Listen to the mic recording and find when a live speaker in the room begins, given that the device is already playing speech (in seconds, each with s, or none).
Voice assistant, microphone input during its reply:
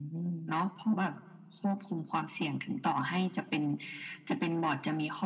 none